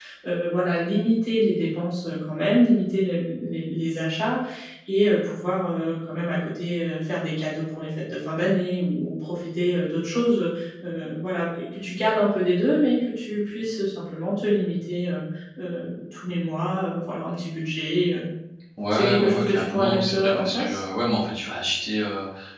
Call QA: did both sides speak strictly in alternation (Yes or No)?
No